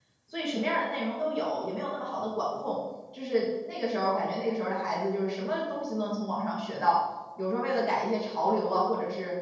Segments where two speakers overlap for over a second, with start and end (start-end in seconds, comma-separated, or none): none